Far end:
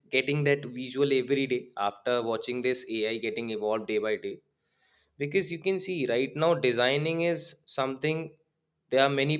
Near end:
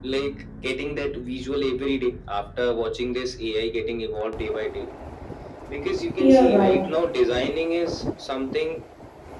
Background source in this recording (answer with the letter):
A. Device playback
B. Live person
A